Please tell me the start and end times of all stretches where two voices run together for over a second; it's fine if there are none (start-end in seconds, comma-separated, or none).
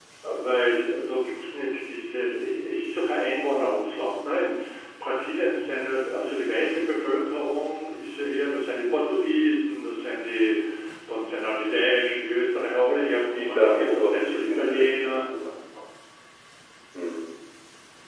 13.1-15.2